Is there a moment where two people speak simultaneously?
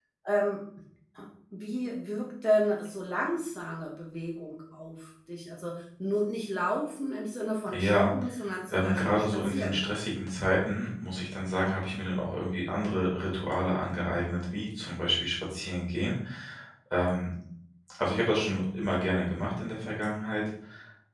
Yes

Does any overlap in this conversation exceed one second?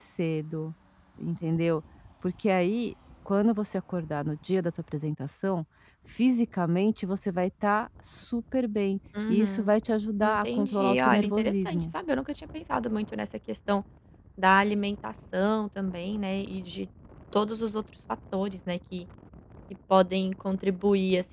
Yes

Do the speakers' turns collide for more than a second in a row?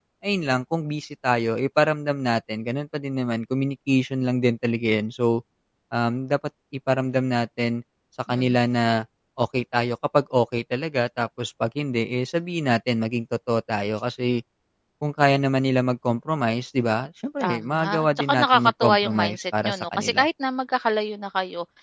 Yes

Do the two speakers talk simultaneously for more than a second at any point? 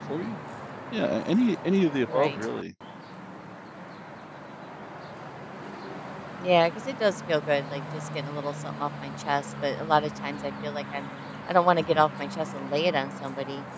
No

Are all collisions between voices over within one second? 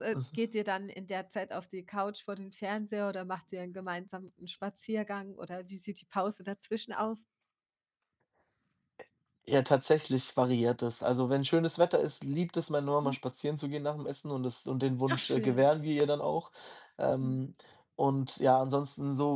Yes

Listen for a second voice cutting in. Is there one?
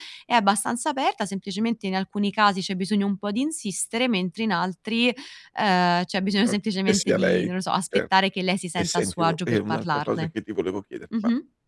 Yes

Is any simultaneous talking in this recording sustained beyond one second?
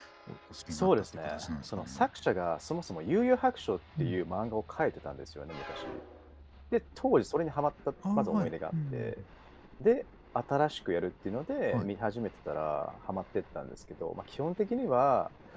Yes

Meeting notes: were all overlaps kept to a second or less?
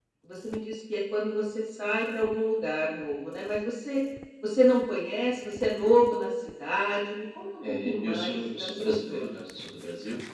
No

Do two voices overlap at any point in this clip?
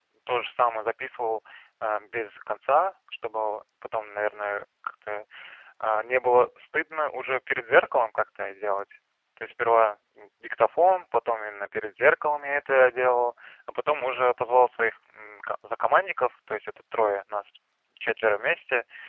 No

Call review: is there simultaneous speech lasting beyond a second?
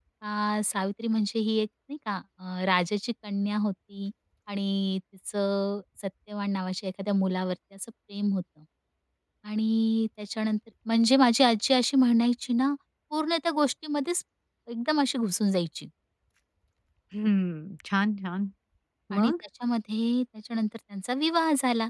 No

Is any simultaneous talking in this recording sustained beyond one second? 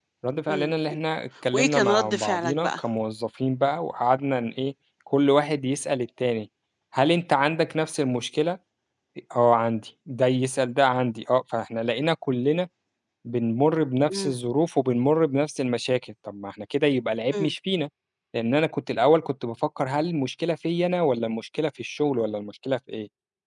Yes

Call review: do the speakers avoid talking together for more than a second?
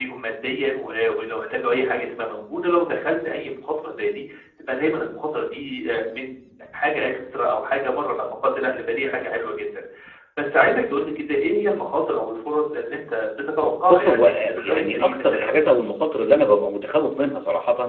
No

